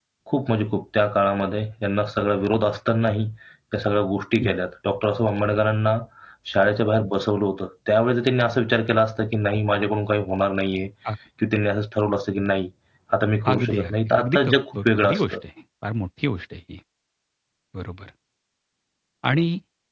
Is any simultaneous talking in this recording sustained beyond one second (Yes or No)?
Yes